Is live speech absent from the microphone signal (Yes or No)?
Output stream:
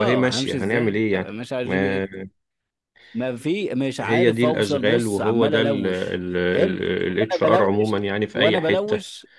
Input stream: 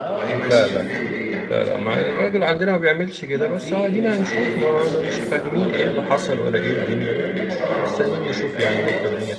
No